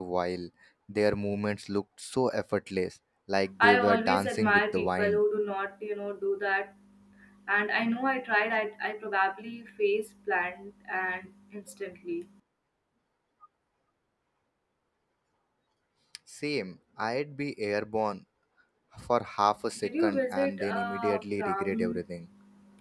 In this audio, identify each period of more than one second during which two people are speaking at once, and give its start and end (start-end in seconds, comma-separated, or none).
3.6-5.2, 19.8-22.0